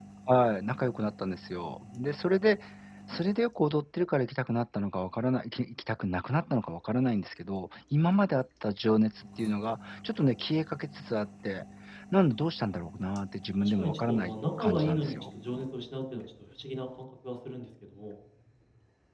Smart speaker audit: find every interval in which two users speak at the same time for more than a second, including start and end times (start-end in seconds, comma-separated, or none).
13.6-15.1